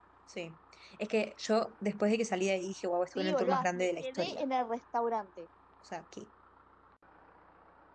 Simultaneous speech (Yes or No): Yes